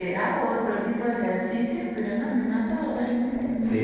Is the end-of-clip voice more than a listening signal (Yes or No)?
Yes